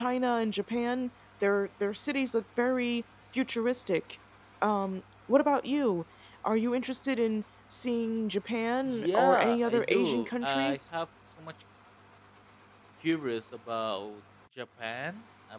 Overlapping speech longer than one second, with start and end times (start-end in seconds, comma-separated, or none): 8.8-10.8